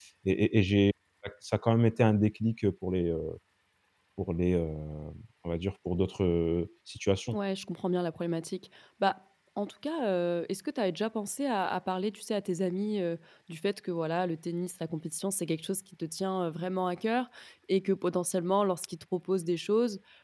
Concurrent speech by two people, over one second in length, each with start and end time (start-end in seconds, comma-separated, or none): none